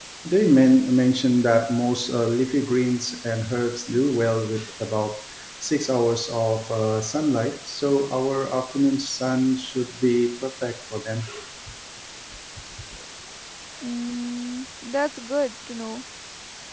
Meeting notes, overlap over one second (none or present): none